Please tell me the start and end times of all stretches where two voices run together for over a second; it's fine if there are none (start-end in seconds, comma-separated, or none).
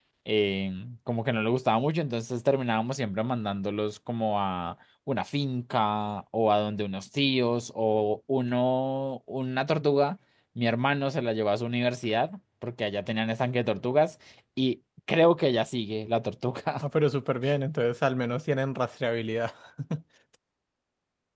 none